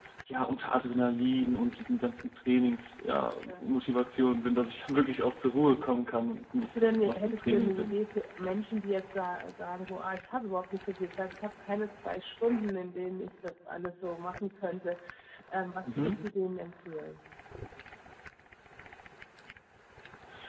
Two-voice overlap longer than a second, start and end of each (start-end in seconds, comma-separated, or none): 6.6-8.0